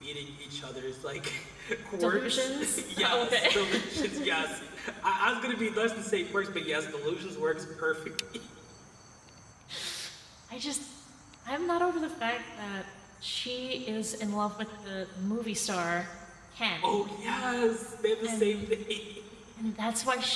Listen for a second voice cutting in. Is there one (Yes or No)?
Yes